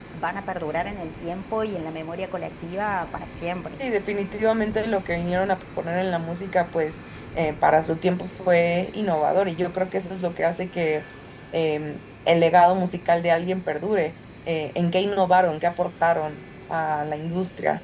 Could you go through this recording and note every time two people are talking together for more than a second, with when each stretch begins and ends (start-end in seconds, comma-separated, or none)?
none